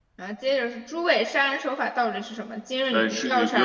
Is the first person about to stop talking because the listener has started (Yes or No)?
Yes